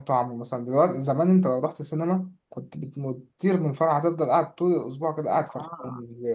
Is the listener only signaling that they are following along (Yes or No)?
Yes